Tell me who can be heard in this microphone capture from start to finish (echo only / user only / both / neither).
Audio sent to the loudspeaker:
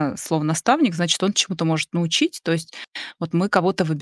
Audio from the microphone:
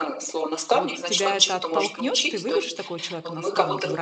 both